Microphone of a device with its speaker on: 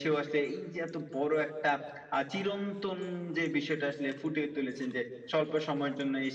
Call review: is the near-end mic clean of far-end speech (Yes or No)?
No